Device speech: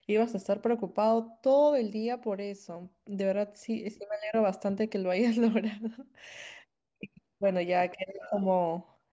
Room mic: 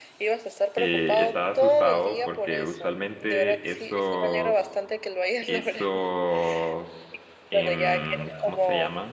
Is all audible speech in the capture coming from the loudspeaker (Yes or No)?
No